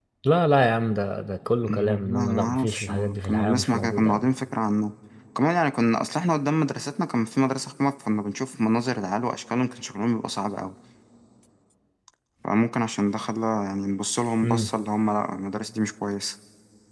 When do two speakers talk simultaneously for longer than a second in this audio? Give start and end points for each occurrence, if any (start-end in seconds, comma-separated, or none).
1.6-4.3